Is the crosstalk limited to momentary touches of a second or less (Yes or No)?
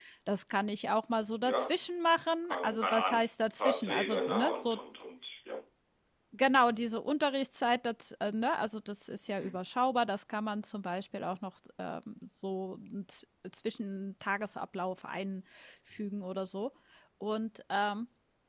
No